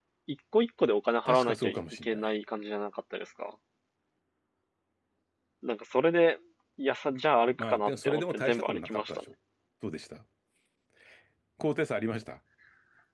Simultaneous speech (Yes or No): Yes